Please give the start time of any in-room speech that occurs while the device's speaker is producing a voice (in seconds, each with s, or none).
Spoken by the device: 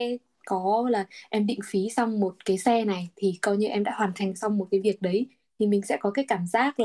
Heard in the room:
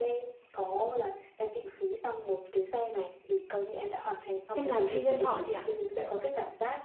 4.5 s